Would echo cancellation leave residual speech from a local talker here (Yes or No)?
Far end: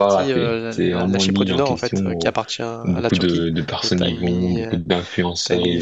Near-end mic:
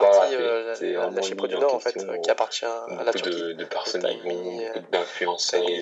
No